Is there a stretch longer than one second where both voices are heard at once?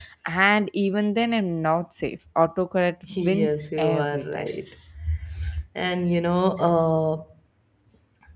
Yes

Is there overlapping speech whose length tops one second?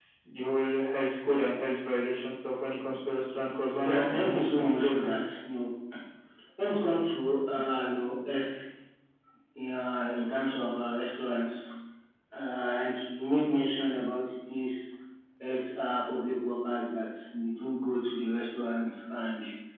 Yes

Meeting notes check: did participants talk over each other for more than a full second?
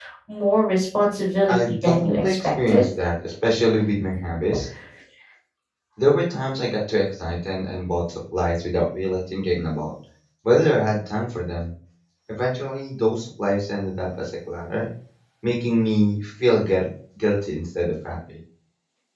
Yes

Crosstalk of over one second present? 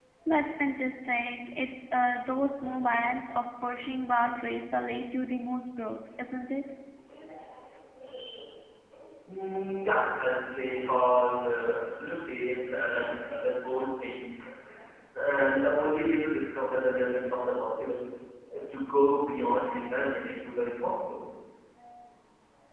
No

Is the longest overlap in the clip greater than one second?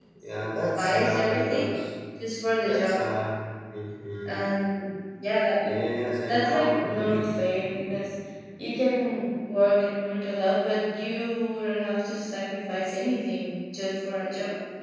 Yes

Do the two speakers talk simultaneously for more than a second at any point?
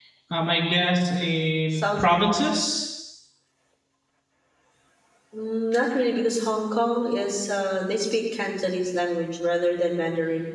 No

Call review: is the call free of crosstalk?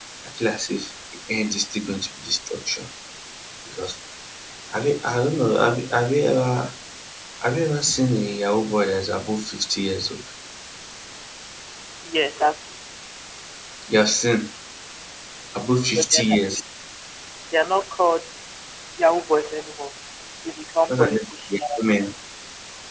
No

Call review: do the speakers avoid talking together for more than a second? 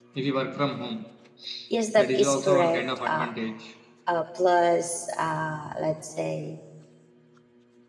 No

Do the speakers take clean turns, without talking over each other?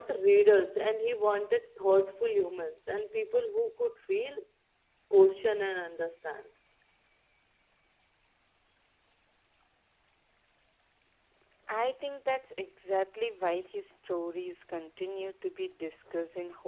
Yes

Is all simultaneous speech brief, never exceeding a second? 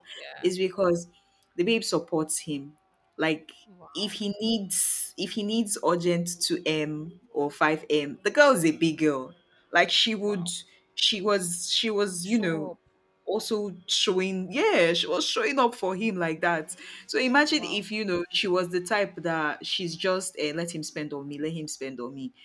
Yes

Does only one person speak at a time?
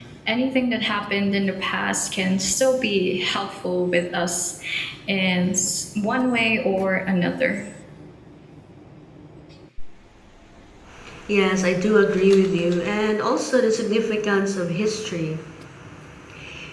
Yes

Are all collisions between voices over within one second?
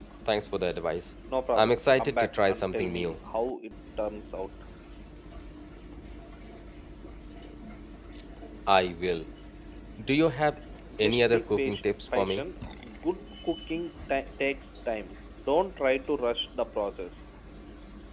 No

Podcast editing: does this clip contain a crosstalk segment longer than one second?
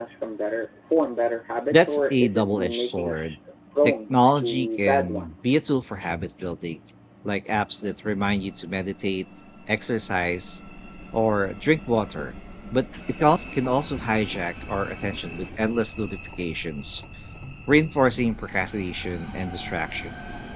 Yes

